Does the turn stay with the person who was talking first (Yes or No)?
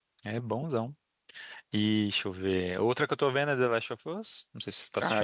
No